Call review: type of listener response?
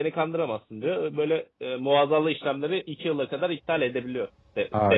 taking over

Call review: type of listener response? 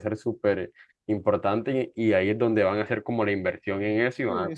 taking over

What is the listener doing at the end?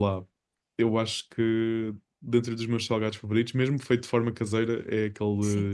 listening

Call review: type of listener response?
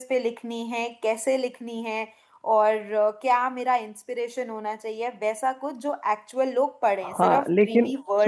taking over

